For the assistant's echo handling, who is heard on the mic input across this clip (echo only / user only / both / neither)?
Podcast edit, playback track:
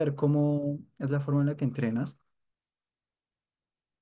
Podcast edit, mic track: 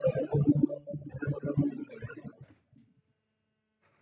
echo only